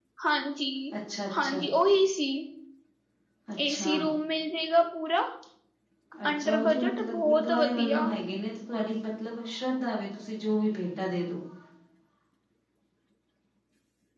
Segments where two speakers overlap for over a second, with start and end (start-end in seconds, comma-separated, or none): 6.3-8.0